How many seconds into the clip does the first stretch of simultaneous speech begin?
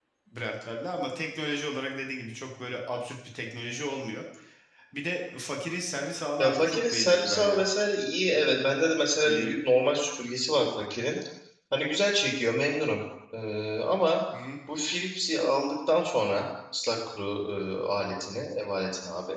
6.4 s

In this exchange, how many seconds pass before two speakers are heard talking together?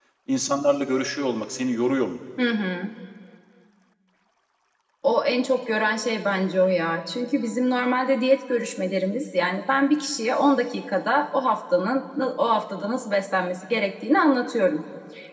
none

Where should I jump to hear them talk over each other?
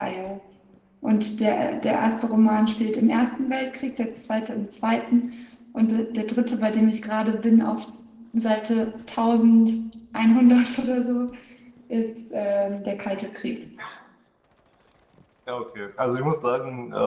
none

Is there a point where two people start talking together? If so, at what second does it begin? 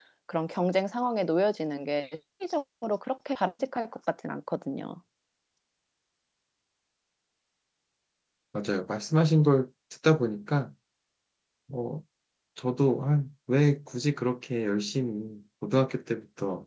none

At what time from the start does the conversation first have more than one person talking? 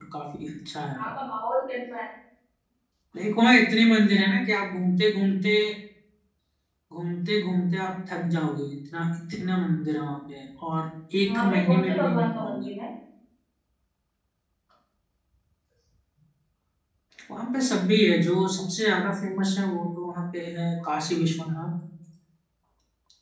11.2 s

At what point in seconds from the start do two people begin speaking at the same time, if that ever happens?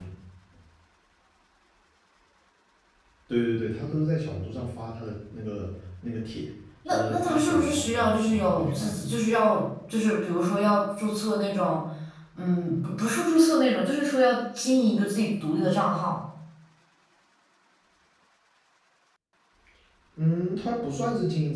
6.9 s

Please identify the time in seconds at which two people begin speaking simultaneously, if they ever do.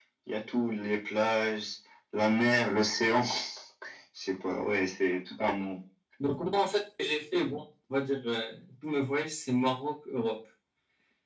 none

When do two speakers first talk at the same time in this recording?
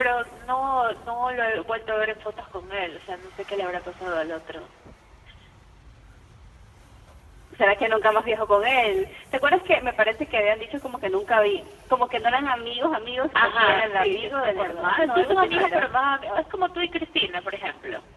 13.3 s

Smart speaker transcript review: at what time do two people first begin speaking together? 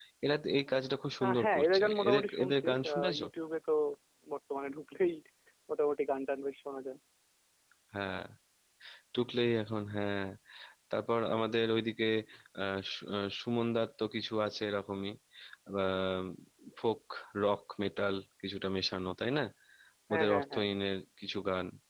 1.2 s

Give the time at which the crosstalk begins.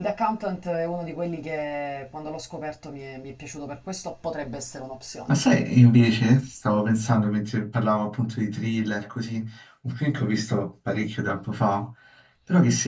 none

